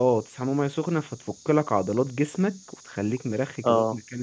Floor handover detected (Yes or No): Yes